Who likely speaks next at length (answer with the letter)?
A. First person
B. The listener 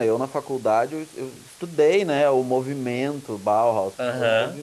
A